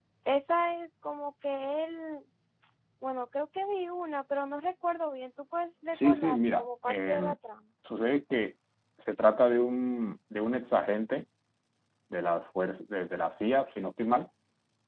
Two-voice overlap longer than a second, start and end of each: 5.9-7.3

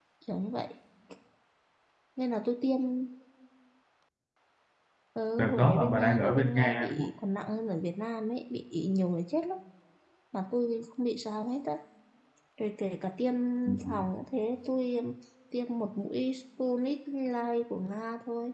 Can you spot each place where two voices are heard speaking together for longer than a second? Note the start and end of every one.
5.4-7.1

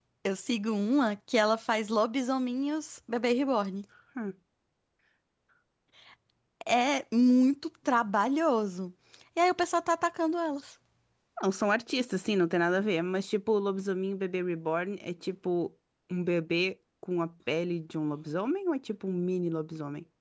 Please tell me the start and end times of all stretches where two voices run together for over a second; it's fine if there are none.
none

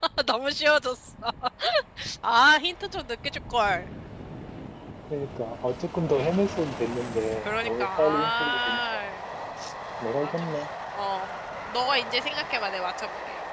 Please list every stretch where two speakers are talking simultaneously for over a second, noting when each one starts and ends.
7.4-9.1

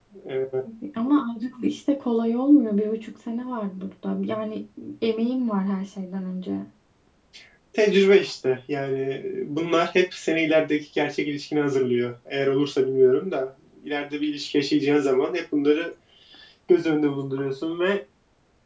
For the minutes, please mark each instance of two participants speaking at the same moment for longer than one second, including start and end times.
none

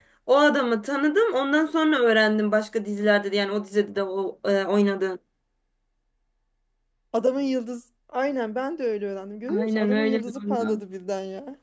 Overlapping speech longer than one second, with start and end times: 9.5-10.8

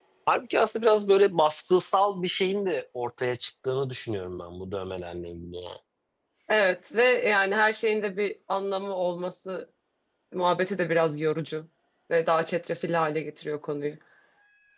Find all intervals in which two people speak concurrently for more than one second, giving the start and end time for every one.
none

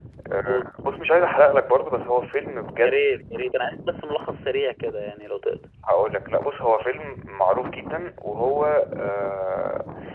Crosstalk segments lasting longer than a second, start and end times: none

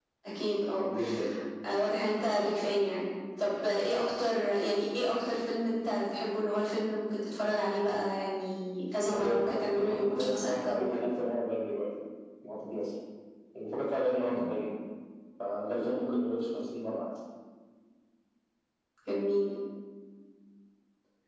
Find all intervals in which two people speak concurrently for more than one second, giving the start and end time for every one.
9.1-11.0

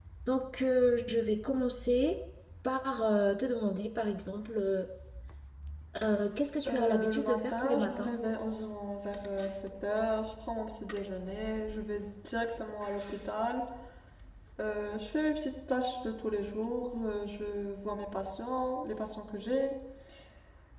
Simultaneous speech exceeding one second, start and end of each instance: 6.7-8.1

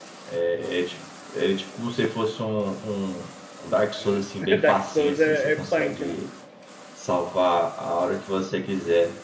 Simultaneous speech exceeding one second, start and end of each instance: 4.0-6.2

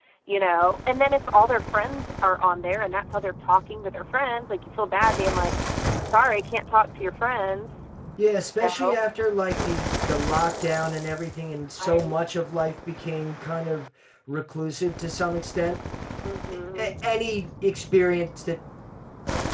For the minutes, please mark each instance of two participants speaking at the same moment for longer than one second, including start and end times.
none

